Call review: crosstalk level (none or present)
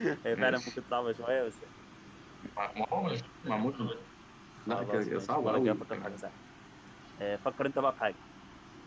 present